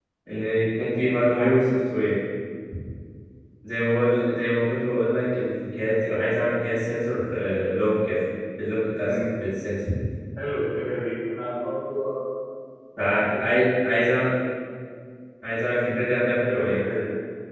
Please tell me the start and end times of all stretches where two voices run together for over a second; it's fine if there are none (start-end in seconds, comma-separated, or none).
none